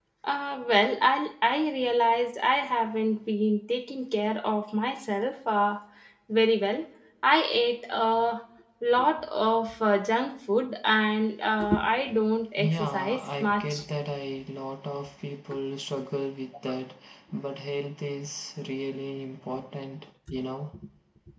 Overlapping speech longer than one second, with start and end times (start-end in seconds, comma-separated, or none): 12.6-13.8